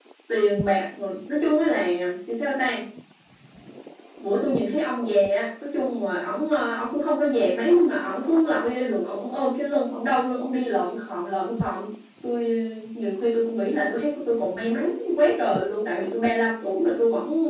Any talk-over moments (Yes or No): No